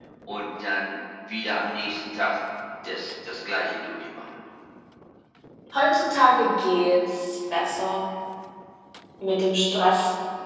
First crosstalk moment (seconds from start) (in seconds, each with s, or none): none